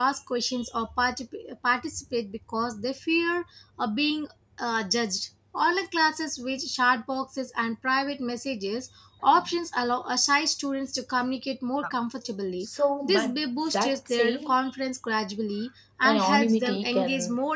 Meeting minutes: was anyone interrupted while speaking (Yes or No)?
Yes